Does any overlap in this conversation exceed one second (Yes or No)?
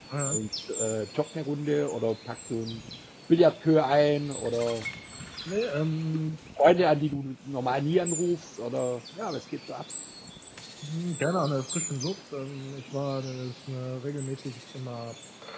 No